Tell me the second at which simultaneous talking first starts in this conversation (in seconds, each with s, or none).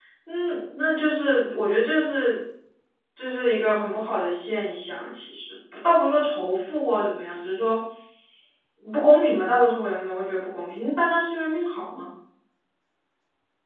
none